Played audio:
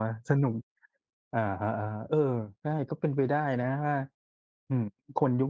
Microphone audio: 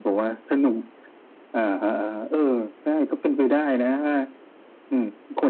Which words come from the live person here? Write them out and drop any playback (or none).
none